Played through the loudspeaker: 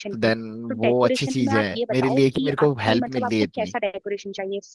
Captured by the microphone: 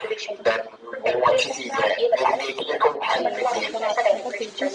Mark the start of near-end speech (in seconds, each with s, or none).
3.1 s